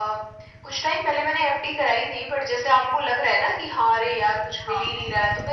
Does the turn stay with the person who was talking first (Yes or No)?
Yes